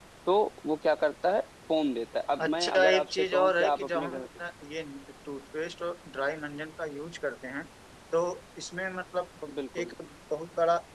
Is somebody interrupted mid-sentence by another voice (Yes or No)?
Yes